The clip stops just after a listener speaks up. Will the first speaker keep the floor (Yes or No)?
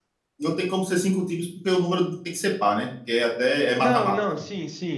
No